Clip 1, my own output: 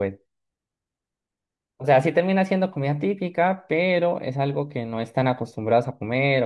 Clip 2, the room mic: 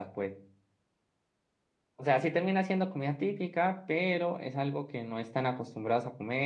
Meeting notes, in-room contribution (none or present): none